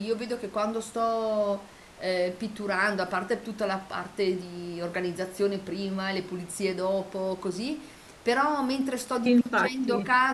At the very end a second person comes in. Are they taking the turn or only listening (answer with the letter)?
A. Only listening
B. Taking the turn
A